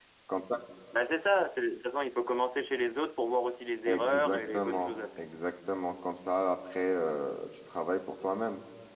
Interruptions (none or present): present